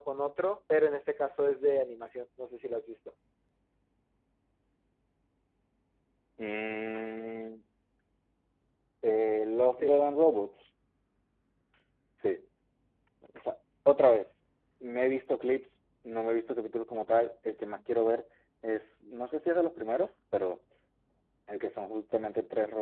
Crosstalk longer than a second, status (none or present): none